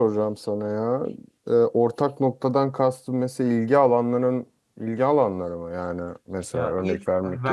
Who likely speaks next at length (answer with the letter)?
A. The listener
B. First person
A